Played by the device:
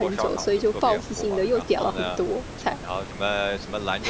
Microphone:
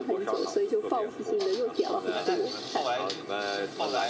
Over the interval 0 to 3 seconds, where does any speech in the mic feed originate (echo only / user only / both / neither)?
both